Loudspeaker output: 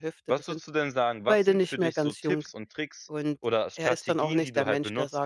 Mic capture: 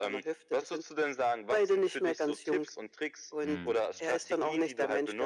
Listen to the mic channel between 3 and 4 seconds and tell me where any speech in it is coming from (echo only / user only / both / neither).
both